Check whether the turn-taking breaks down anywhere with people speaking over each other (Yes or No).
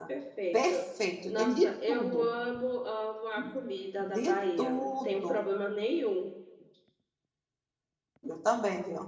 Yes